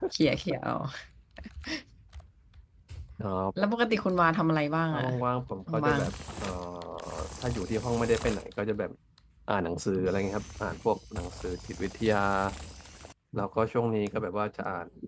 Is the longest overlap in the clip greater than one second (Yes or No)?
No